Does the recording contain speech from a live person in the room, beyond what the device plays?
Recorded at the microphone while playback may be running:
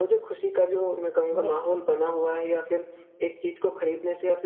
Yes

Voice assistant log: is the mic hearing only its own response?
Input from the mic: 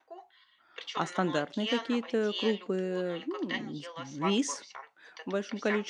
No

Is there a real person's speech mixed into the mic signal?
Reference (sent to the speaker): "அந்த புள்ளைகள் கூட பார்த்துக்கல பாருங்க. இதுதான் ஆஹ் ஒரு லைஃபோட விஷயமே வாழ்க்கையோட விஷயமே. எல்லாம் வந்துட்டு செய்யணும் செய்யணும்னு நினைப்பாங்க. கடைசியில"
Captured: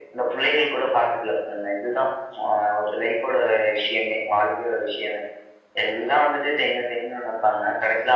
No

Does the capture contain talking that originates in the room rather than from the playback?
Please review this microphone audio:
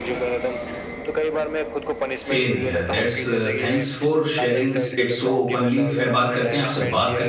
Yes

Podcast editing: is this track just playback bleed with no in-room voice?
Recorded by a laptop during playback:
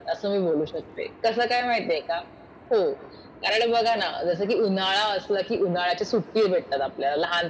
Yes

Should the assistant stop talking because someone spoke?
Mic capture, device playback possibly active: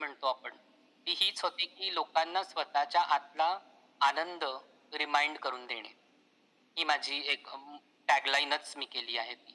No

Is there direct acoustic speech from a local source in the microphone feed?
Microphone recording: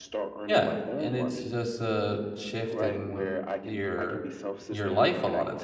Yes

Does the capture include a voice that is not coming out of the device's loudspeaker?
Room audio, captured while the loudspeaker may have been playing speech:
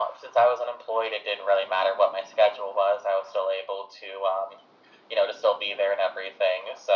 No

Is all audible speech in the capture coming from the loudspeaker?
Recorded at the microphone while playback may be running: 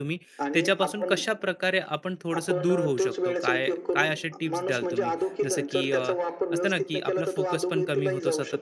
No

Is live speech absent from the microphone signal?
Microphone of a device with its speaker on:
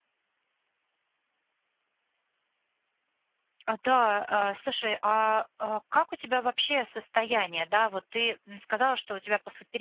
No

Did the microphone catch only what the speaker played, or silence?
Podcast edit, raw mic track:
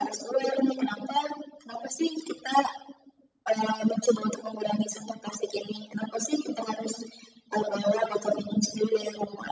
Yes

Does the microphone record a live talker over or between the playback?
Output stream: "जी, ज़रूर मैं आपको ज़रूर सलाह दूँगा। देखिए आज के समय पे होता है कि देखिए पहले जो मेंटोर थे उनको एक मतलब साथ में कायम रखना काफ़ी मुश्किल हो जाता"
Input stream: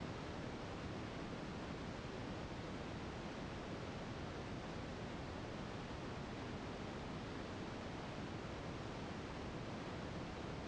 No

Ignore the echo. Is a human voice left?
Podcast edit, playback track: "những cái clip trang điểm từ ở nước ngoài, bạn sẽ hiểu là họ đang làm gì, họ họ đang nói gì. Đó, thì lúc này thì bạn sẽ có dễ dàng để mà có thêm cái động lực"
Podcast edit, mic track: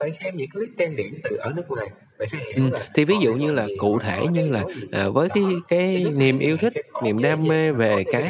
Yes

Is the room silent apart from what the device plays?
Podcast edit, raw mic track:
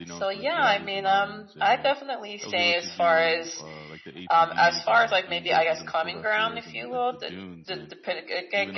No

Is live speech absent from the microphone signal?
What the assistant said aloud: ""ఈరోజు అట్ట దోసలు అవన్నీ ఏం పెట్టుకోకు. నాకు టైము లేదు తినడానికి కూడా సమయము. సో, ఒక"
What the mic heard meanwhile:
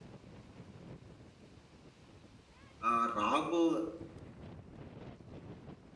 No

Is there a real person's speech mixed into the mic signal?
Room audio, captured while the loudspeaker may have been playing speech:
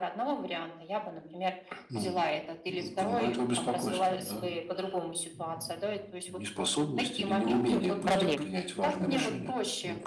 Yes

